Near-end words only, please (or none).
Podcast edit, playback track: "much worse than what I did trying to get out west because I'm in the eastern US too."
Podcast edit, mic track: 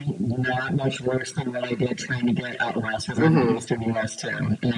Mm-hmm.